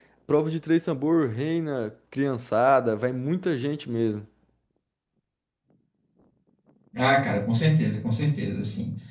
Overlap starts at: none

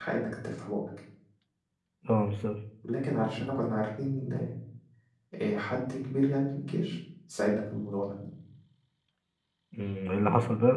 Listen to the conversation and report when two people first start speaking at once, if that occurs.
none

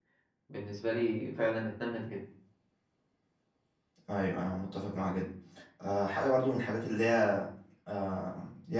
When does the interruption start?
none

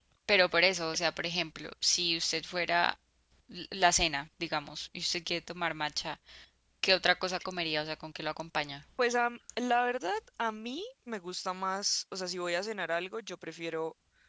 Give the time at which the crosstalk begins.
none

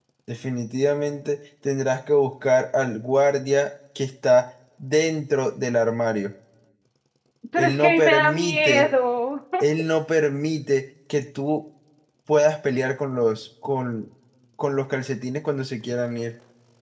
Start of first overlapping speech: 7.6 s

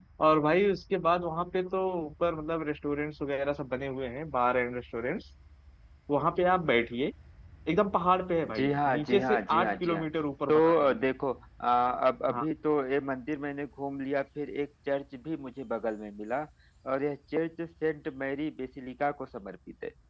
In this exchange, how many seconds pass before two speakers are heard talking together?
8.6 s

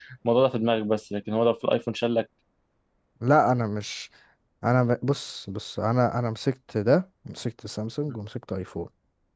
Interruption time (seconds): none

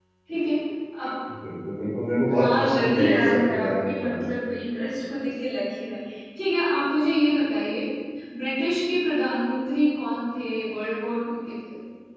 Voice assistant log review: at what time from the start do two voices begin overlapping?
2.3 s

